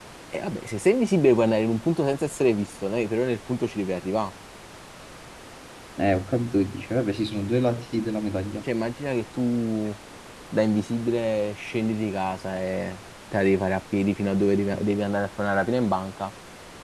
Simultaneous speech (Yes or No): No